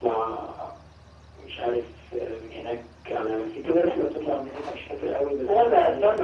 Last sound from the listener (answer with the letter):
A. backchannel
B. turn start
B